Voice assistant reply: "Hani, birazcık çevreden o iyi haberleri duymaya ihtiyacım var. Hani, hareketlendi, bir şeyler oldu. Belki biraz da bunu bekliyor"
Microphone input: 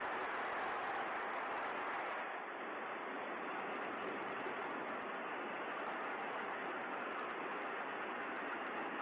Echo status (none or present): none